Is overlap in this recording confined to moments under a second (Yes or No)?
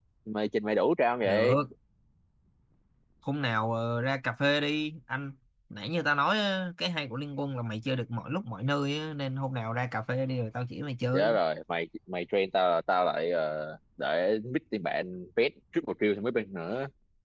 Yes